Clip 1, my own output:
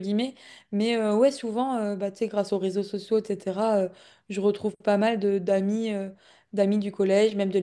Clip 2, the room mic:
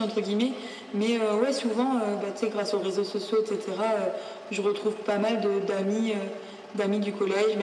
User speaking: No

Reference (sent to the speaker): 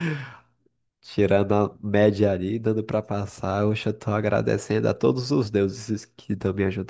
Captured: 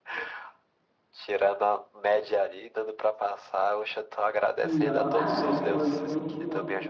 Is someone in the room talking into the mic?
Yes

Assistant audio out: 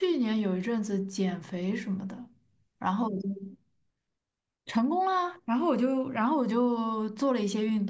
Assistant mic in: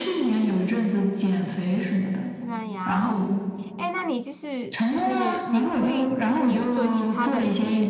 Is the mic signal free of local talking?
No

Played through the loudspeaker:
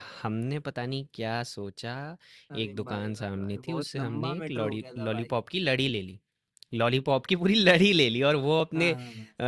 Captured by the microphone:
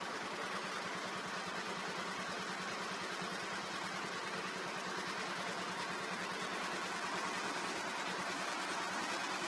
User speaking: No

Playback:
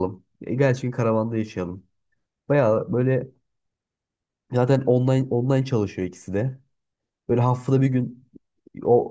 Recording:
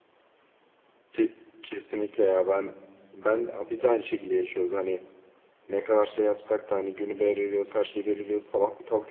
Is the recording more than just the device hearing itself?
Yes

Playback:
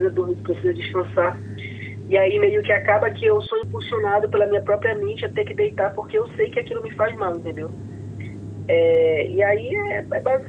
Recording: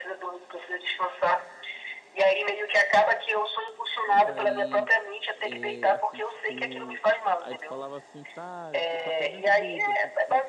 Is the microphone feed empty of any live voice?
No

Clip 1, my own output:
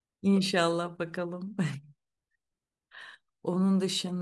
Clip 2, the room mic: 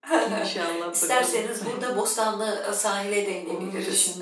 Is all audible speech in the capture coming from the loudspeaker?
No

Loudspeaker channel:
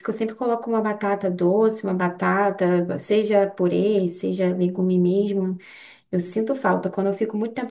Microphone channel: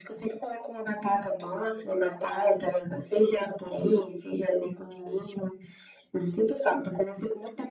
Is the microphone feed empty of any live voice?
Yes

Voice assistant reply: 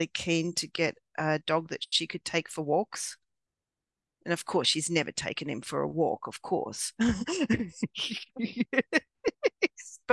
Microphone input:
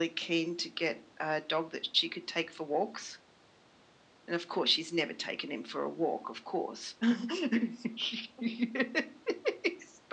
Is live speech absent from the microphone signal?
Yes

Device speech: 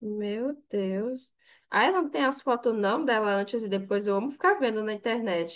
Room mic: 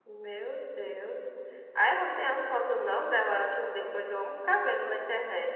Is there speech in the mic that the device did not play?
No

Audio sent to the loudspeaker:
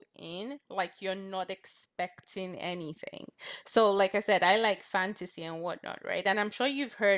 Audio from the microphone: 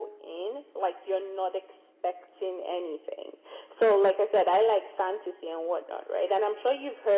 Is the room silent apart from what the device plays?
Yes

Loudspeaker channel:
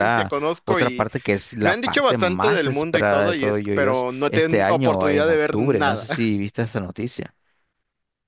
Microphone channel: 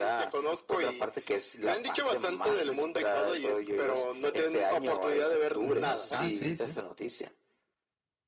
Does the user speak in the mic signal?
Yes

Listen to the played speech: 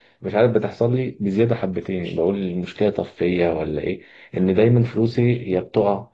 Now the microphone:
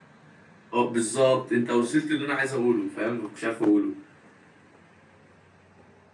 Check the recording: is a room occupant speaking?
Yes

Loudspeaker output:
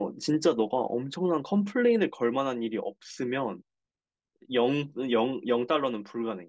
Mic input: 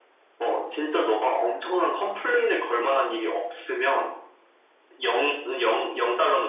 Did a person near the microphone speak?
No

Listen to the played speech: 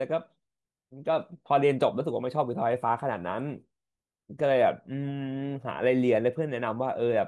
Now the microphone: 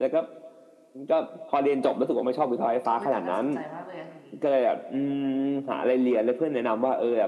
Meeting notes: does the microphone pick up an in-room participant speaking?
Yes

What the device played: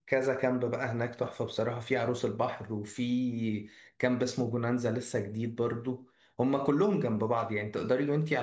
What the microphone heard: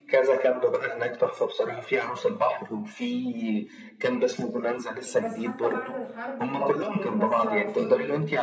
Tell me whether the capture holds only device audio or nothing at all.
No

